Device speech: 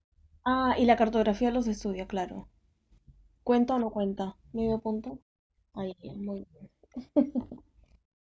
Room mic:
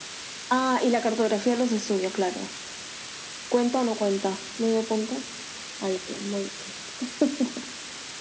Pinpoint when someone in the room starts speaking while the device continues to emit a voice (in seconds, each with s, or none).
none